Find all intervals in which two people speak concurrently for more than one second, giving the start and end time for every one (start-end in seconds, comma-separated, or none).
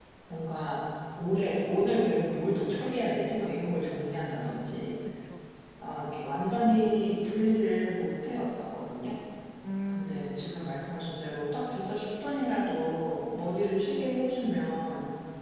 9.9-11.2